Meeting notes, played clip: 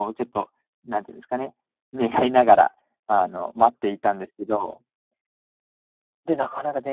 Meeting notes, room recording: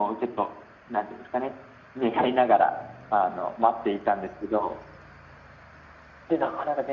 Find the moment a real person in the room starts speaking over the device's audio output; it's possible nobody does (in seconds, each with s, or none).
none